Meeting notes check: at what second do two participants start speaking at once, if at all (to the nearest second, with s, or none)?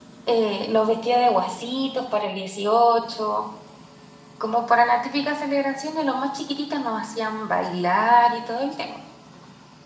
none